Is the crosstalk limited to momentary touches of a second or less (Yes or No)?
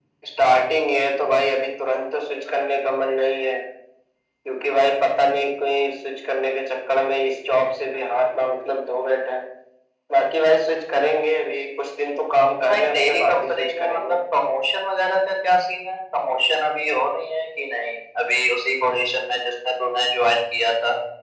No